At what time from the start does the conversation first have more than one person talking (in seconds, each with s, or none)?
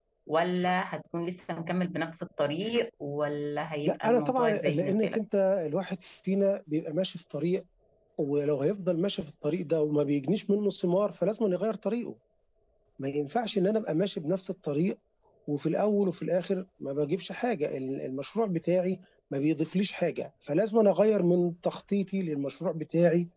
3.8 s